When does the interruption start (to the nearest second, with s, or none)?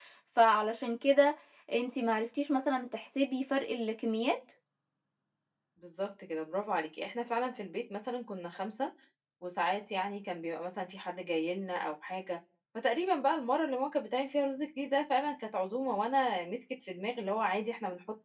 none